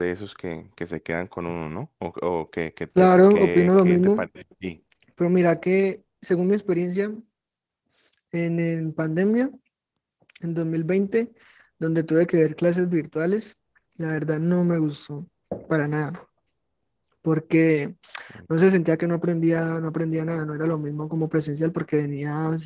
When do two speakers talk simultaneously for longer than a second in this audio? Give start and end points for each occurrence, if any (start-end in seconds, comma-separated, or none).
3.0-4.2